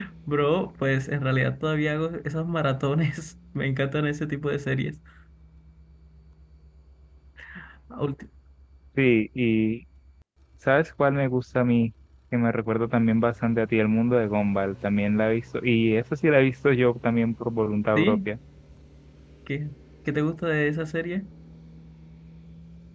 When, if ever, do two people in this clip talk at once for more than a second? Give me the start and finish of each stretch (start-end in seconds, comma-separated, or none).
none